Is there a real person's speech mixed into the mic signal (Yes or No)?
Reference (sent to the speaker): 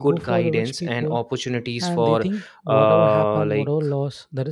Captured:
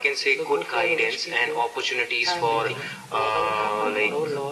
Yes